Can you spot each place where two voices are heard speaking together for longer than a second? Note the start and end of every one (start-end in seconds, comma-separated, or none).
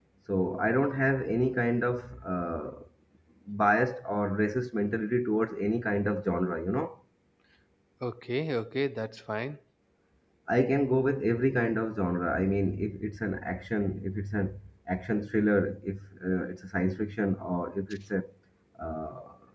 none